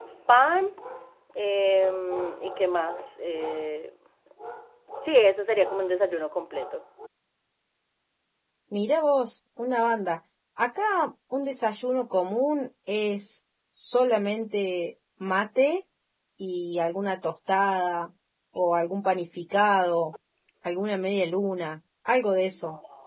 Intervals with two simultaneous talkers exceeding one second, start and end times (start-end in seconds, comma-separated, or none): none